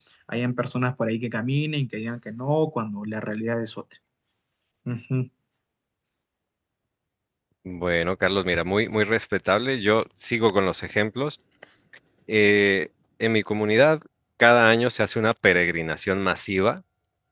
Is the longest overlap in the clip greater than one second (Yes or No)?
No